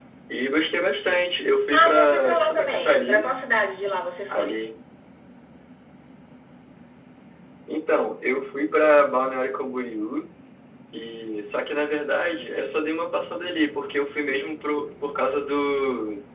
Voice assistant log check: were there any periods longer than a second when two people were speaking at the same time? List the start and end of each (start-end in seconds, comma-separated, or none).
1.7-3.3